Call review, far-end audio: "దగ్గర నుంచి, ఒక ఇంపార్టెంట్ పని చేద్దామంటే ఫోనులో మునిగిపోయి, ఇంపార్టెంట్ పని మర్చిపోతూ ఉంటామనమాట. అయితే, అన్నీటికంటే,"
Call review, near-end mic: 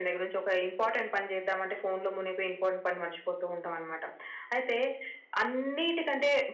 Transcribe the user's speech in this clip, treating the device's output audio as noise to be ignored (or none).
none